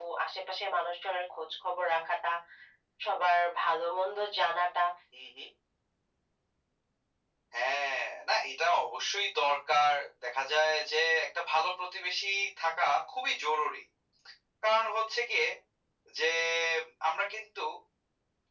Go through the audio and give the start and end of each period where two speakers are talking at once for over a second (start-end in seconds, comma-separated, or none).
none